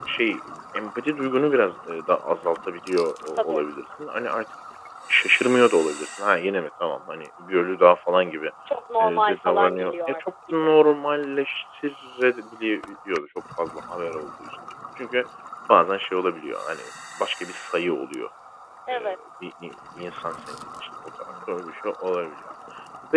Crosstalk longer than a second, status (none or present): present